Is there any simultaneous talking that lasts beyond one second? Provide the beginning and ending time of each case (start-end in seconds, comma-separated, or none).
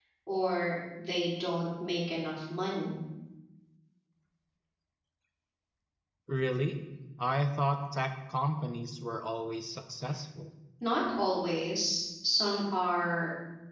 none